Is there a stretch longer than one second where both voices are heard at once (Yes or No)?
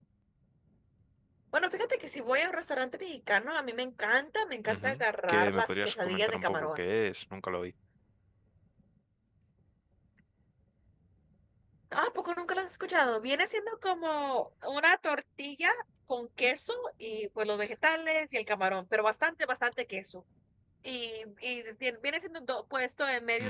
Yes